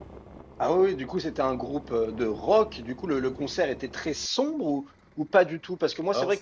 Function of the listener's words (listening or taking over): listening